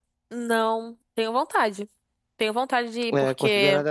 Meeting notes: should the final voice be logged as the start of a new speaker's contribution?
Yes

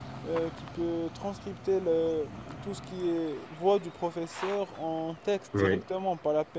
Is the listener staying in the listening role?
Yes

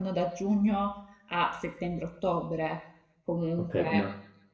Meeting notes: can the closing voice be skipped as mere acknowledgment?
No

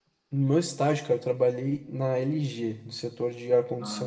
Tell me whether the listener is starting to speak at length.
Yes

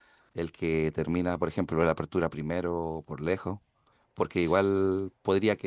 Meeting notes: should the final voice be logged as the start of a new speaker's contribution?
No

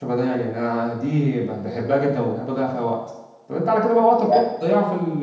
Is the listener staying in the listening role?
Yes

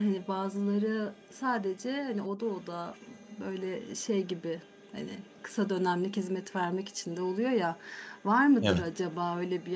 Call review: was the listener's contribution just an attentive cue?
Yes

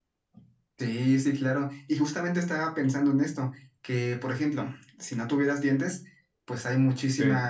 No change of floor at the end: Yes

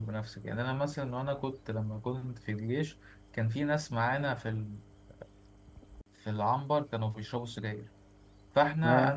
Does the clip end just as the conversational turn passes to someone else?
No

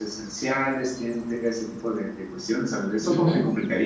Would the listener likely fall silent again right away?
No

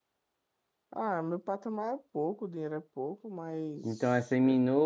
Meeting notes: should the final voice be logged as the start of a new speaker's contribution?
Yes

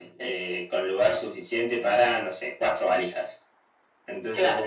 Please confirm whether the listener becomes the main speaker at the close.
No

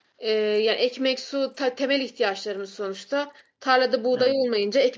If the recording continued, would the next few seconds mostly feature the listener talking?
No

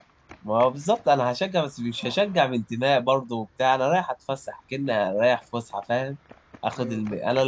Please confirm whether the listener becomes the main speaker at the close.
No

